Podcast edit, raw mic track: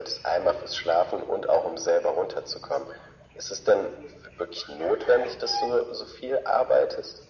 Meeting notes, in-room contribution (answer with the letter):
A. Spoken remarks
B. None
B